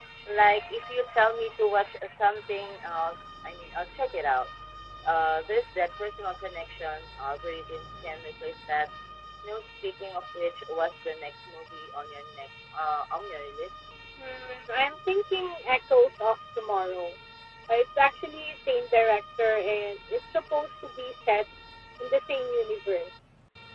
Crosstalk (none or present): none